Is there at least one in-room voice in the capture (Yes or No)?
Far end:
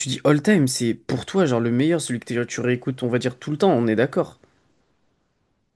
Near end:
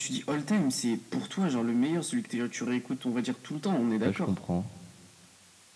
Yes